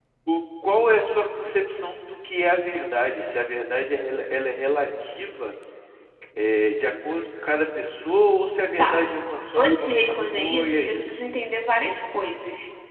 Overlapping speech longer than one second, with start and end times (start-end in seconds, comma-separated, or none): 9.6-11.2